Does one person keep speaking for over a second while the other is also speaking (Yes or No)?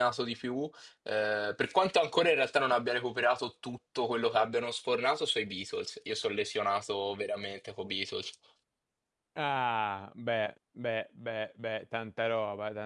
No